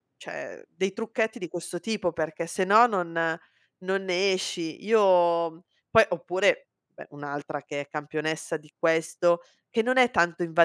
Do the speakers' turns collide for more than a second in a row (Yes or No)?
No